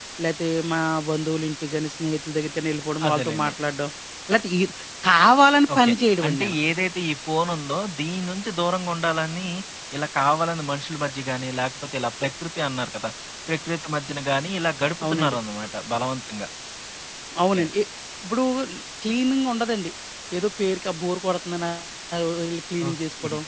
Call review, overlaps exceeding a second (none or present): none